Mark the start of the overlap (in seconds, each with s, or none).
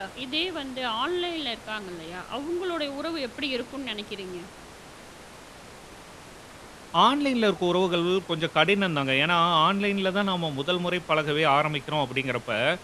none